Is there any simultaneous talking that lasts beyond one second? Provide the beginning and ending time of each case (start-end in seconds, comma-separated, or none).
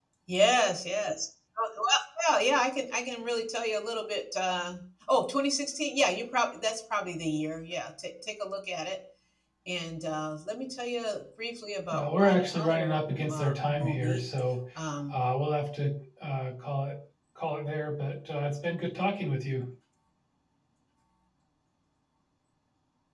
11.9-14.2